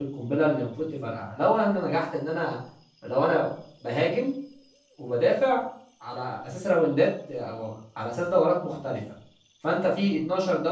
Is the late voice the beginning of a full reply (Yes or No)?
No